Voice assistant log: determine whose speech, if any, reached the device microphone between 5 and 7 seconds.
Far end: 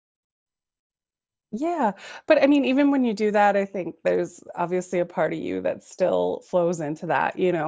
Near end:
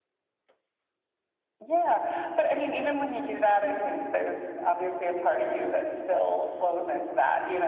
echo only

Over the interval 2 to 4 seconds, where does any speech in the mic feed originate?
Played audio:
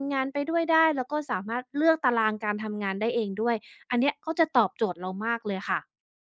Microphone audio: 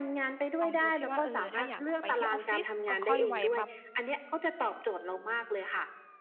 both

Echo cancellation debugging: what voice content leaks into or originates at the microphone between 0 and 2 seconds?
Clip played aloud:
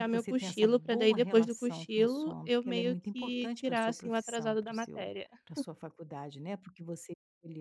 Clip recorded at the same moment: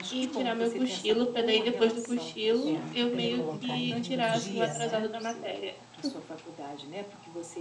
echo only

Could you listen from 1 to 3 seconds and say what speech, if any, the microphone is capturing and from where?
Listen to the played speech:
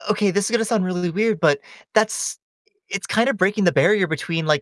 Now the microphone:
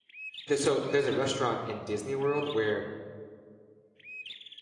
user only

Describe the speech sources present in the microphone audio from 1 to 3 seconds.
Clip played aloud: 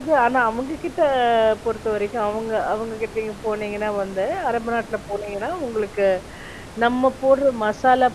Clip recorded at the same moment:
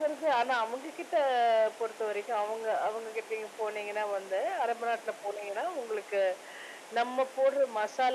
echo only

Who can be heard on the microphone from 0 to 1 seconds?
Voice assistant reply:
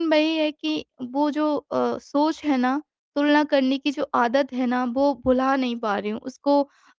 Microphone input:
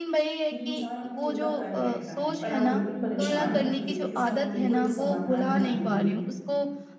both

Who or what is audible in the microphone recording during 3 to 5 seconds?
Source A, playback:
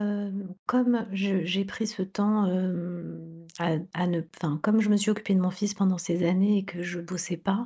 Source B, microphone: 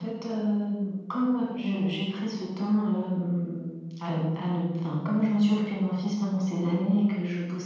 echo only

